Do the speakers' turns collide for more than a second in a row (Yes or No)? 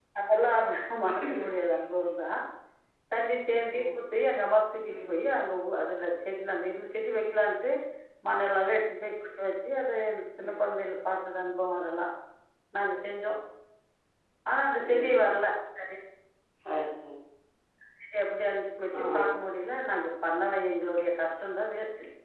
No